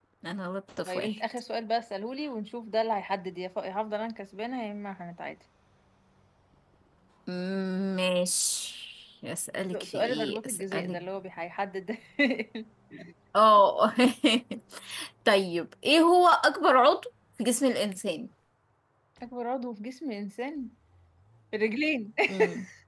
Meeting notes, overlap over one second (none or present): present